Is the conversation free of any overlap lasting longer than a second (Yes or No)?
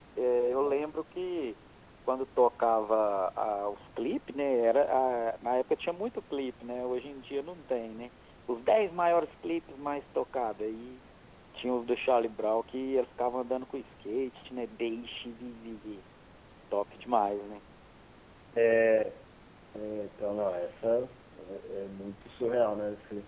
Yes